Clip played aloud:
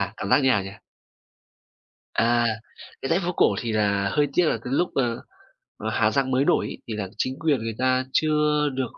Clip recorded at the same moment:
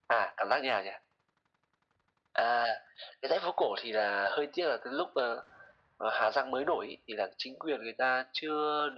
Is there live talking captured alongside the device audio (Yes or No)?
No